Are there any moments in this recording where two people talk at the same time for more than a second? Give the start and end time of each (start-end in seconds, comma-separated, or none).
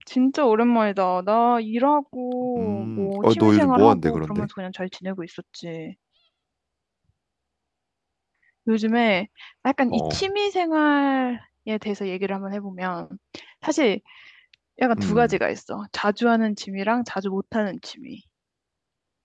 2.6-4.5